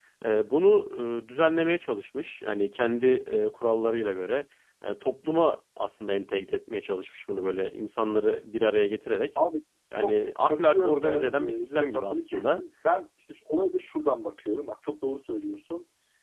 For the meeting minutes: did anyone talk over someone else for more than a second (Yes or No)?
Yes